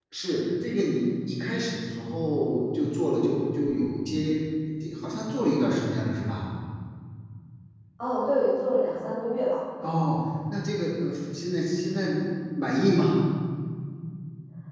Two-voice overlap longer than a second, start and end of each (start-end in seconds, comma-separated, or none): none